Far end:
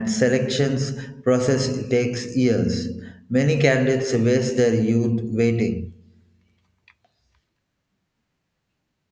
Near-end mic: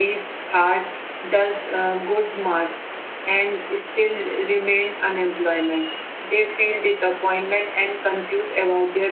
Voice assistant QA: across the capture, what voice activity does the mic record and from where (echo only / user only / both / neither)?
user only